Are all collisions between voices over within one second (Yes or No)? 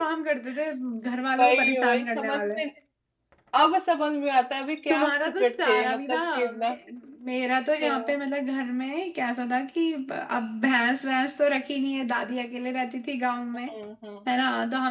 No